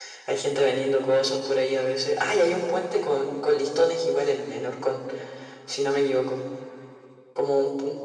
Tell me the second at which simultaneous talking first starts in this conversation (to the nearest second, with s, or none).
none